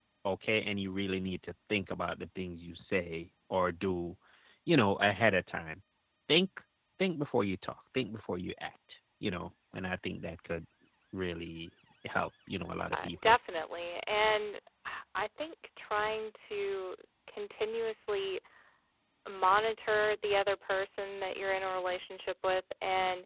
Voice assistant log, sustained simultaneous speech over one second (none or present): none